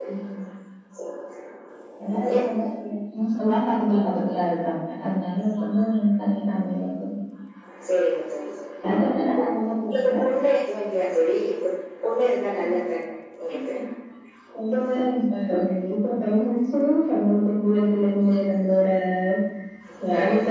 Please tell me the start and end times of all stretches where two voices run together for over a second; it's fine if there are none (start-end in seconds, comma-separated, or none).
none